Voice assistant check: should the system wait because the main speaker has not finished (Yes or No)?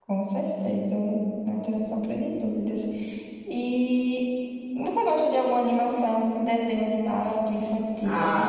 No